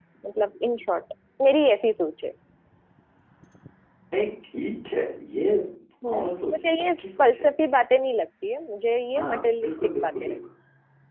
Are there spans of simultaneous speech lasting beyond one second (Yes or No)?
Yes